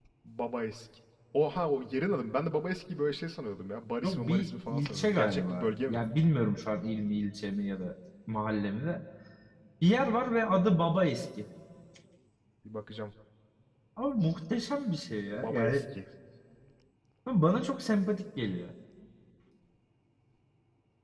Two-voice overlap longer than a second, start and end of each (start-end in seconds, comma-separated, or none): 4.0-6.0